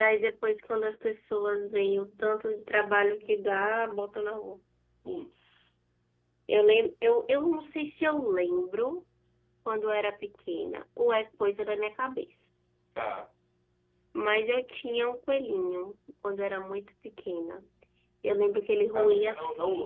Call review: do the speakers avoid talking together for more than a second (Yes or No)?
Yes